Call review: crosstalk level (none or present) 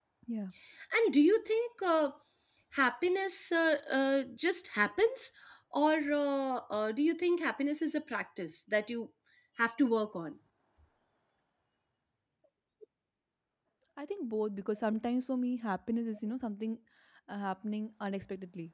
none